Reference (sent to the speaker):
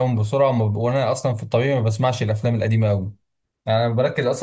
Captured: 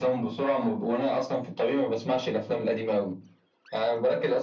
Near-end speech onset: none

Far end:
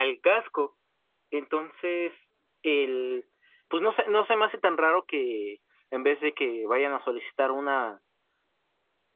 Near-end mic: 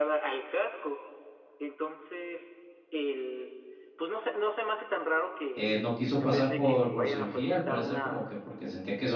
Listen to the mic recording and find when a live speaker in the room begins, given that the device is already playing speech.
5.5 s

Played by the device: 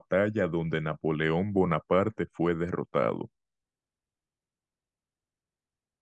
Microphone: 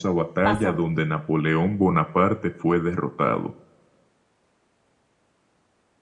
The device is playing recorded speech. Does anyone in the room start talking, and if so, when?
0.4 s

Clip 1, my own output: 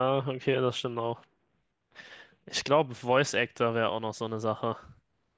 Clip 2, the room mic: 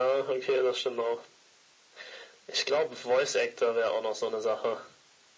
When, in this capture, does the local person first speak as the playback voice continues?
none

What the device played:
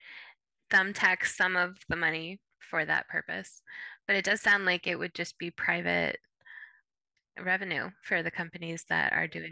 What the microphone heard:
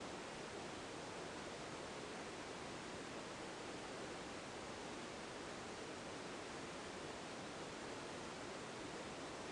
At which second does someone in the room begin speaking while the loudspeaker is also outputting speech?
none

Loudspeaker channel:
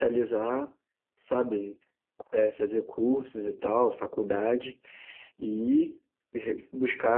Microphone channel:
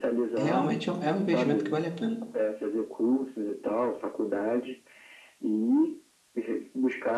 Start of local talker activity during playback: 0.4 s

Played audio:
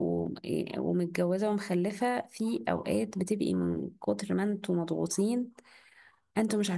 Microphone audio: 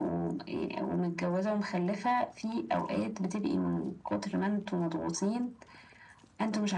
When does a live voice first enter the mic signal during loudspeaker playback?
none

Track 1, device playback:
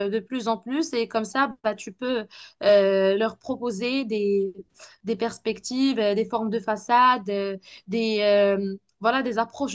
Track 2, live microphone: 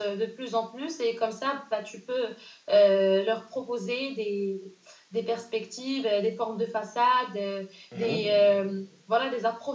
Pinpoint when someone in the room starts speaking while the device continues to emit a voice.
7.9 s

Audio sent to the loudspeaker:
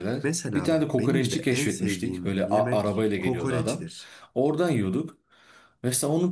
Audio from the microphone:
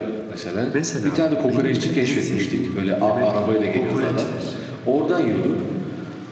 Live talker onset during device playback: none

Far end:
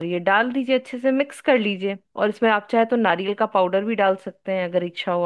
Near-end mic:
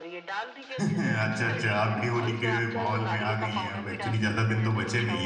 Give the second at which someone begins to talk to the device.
0.8 s

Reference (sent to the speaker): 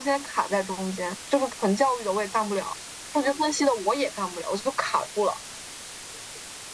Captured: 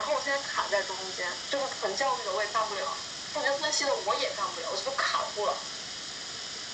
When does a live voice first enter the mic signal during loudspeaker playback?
none

